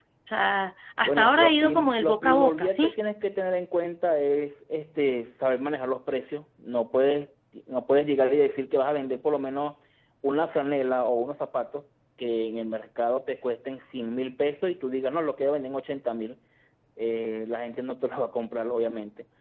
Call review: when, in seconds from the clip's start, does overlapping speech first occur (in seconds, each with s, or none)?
1.1 s